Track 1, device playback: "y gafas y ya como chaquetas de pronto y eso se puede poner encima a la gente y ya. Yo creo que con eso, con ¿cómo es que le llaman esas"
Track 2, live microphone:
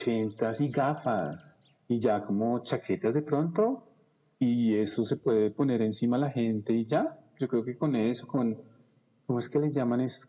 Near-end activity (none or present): none